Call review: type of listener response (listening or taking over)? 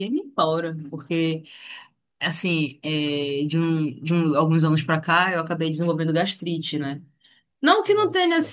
listening